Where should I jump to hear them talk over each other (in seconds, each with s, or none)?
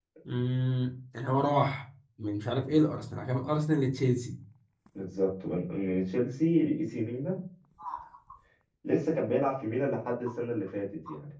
none